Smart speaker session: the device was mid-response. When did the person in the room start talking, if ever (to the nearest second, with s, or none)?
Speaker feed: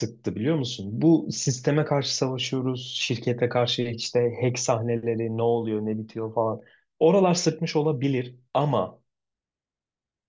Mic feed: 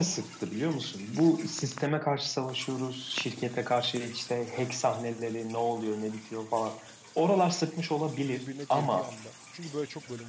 8 s